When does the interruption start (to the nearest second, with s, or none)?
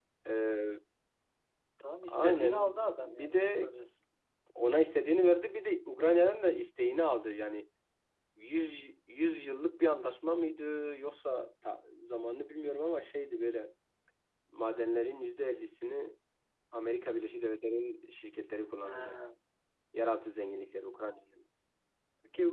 2 s